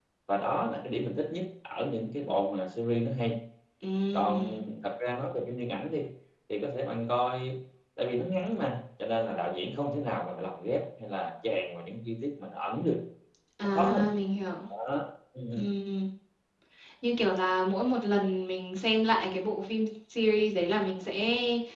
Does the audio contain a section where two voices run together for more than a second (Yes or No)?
No